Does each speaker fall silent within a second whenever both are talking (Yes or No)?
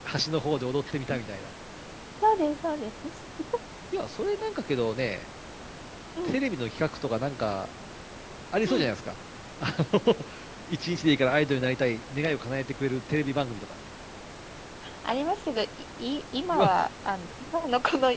Yes